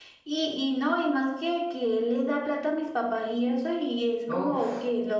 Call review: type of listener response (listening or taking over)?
listening